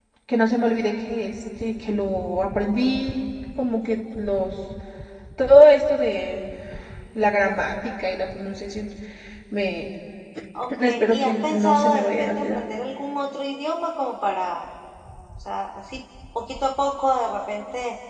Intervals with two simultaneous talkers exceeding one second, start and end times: 10.8-12.6

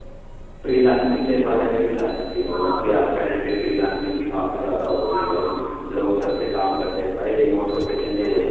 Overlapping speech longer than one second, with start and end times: none

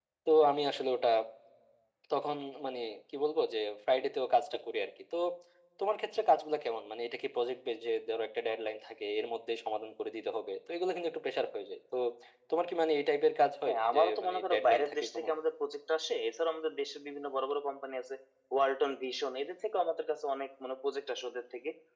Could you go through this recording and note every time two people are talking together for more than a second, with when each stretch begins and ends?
13.7-15.3

